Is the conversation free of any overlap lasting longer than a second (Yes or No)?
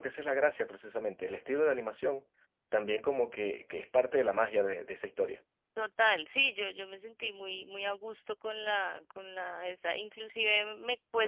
Yes